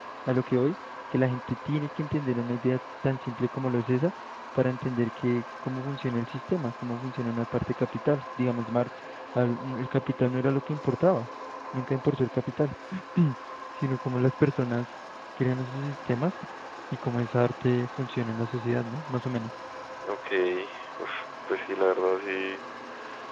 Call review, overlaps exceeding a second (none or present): none